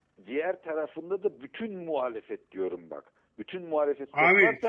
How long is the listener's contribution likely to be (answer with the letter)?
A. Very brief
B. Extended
A